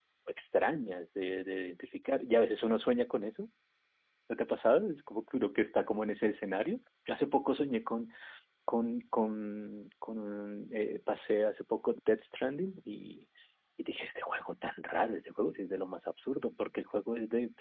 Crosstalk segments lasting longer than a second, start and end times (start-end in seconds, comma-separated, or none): none